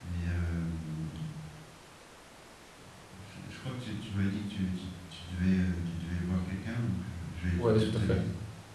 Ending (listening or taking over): taking over